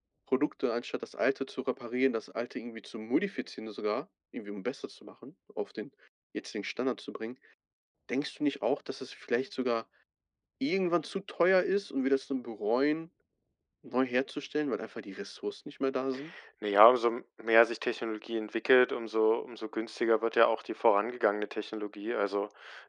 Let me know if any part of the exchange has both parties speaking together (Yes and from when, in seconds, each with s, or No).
No